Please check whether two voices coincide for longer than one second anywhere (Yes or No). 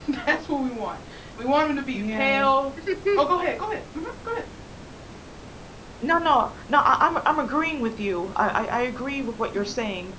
No